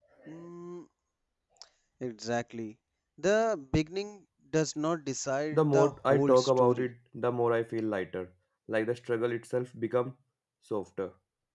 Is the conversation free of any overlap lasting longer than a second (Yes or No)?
No